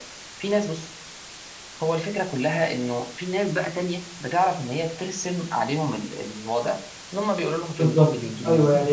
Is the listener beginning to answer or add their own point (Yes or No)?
Yes